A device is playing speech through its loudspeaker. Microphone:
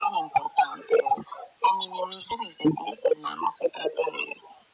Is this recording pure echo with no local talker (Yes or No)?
Yes